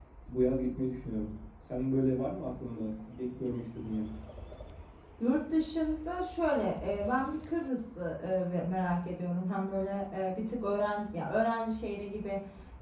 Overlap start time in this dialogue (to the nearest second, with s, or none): none